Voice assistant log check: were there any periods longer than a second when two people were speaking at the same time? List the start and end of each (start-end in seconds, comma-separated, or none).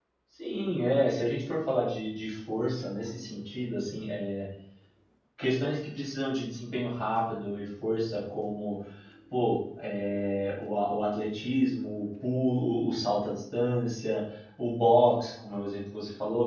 none